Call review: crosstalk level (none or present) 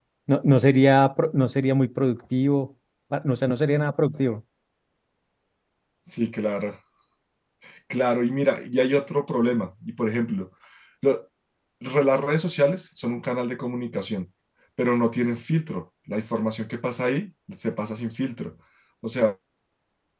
none